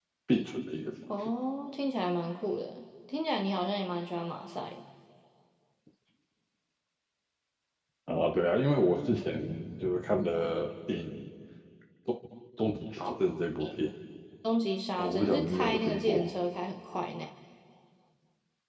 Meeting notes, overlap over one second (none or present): present